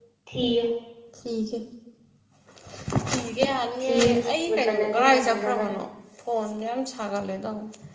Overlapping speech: Yes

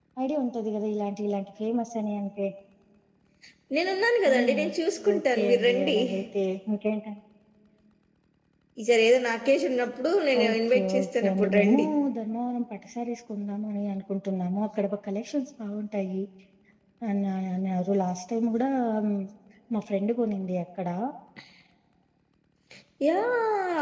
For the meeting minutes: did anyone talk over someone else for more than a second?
Yes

